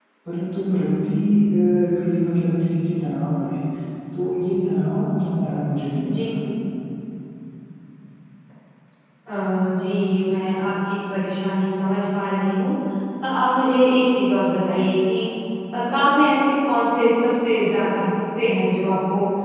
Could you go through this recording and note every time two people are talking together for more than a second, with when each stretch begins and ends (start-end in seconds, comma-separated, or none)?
none